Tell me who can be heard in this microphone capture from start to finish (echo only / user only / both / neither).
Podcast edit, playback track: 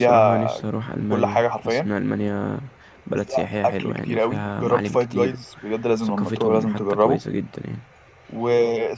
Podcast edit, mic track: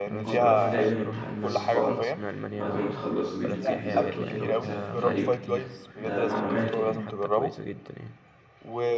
both